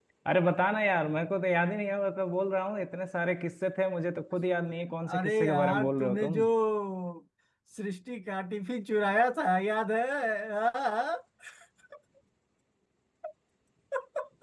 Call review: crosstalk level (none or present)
present